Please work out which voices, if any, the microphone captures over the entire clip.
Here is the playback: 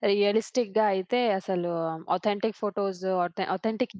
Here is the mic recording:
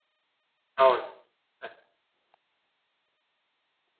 user only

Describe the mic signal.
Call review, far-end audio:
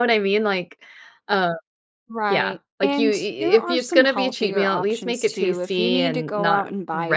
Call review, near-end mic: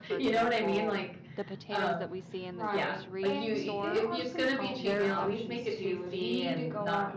both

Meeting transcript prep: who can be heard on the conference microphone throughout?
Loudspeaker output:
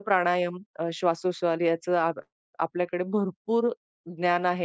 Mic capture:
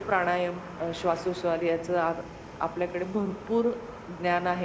echo only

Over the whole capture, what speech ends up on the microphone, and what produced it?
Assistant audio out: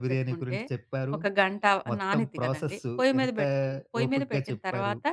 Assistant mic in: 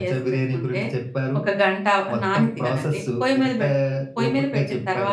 echo only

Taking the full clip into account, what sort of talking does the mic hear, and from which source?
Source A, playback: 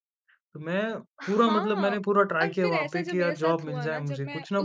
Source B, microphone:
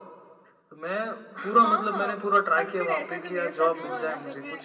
both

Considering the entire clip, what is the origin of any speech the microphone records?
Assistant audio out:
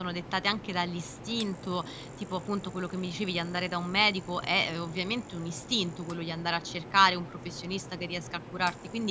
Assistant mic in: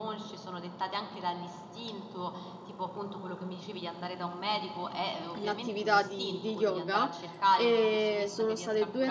both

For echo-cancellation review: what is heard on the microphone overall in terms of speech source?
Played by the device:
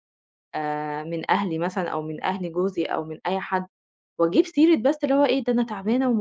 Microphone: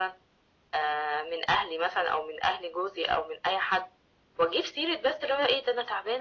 echo only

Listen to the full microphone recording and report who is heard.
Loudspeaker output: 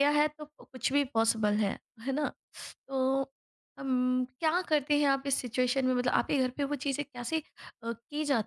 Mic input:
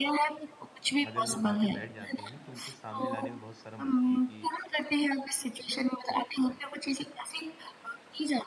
both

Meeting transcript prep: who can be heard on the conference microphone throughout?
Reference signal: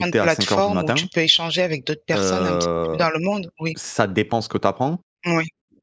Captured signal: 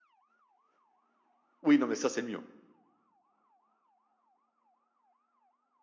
user only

